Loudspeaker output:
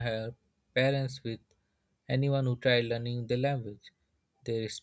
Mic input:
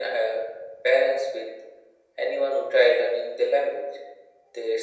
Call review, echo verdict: present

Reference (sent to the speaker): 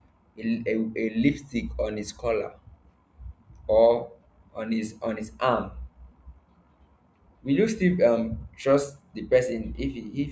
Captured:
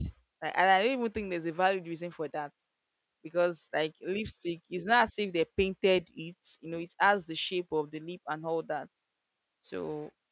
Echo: none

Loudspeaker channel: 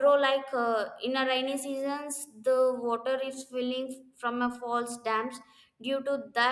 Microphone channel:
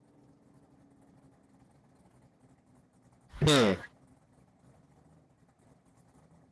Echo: none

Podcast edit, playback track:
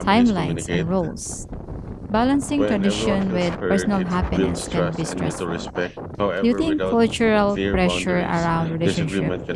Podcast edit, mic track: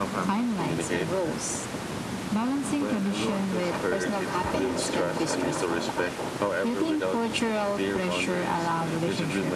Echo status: present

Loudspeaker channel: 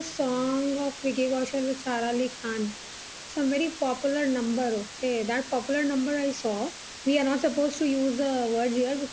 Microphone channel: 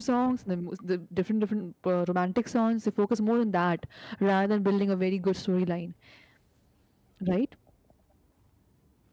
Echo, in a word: none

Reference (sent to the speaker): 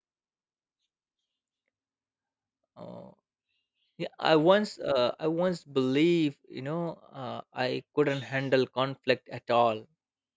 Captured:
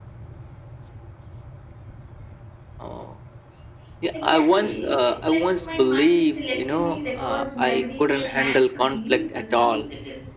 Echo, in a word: present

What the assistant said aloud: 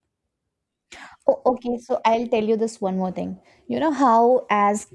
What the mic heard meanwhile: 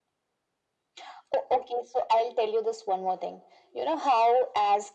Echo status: present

